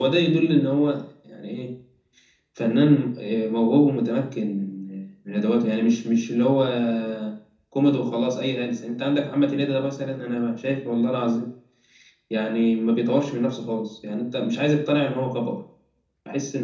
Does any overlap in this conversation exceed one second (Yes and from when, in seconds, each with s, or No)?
No